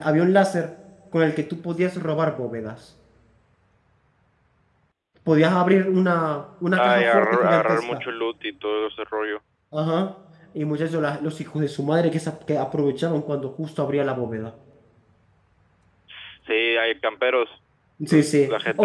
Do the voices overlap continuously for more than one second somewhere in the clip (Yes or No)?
Yes